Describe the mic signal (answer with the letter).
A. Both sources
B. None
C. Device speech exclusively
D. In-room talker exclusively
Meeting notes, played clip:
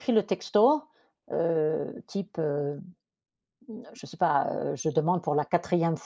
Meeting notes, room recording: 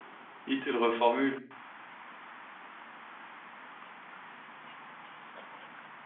D